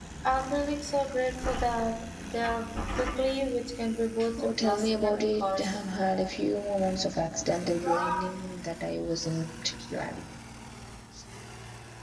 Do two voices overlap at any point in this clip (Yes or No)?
Yes